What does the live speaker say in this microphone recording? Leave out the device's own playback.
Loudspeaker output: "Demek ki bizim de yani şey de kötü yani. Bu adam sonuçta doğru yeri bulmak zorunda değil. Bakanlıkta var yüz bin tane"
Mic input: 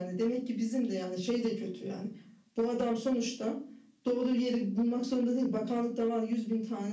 none

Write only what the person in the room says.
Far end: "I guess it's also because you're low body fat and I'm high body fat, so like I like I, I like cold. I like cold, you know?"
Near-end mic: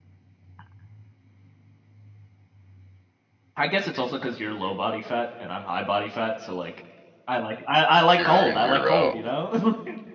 year in, year out.

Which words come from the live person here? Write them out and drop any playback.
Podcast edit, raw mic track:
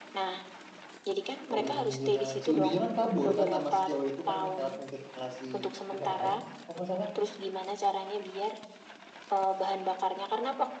Oh iya, si woody kan kabur kan sama si cewek itu kan lewat ventilasi udara, kalau nggak salah.

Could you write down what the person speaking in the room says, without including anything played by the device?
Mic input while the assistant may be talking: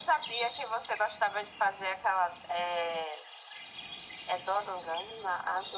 none

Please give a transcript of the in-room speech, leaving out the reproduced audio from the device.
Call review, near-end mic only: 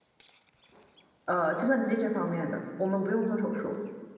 呃，计算机这方面的，我们不用做手术。

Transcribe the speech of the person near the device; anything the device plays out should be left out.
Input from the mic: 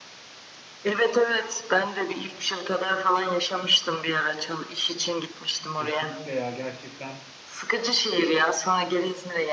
Kesinlikle ya gerçekten.

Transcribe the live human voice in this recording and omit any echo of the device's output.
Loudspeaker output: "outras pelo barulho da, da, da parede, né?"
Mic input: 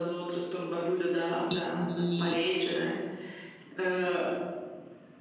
E,

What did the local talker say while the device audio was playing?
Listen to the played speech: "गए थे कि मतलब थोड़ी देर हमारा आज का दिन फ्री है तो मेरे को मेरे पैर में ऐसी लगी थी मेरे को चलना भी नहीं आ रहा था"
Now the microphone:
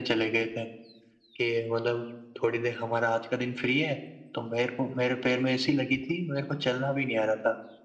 none

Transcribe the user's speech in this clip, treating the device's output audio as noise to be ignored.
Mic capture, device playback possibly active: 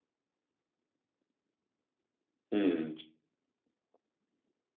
음

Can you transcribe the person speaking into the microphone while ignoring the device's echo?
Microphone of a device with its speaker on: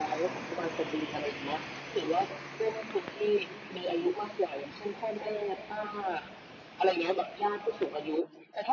none

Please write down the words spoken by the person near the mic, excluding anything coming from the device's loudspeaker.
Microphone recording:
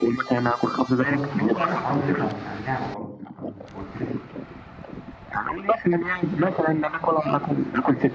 اه بس برضه يعني حرام ادوس على على النعمه برضه انت ما قلتليش الحوار

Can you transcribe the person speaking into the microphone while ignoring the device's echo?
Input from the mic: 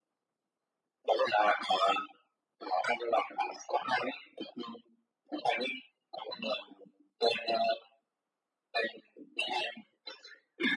none

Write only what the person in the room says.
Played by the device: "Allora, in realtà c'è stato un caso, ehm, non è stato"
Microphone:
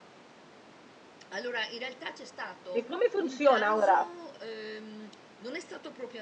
E come funziona ora?

